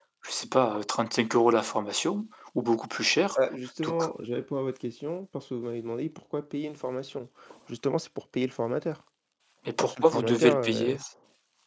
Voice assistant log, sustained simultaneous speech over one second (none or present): present